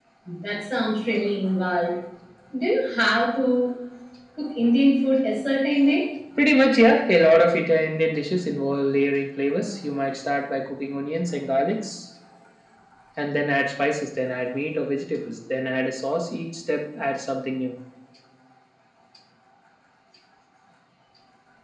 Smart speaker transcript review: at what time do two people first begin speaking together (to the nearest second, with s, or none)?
none